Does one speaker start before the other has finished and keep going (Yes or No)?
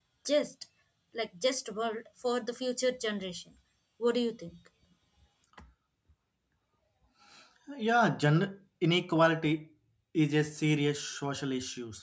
No